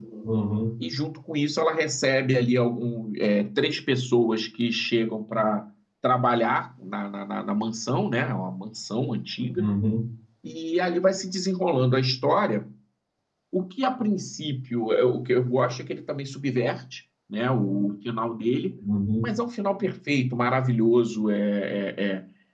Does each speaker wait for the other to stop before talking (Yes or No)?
Yes